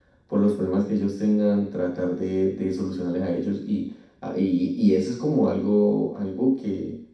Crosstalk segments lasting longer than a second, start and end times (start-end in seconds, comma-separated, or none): none